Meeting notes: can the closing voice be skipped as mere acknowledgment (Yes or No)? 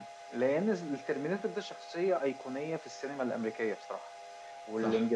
Yes